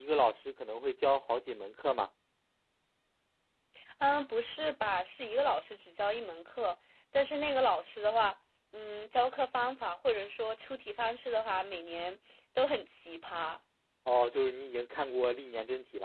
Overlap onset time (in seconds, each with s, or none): none